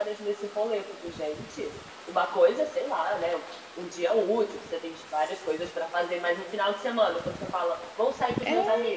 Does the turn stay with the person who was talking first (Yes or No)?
Yes